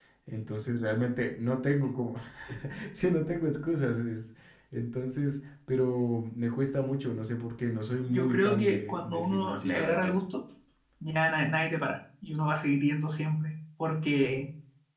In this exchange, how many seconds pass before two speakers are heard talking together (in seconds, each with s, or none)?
8.0 s